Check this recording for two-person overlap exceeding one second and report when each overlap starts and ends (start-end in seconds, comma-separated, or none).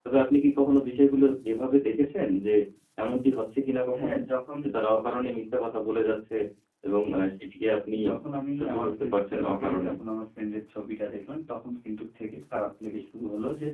8.6-9.9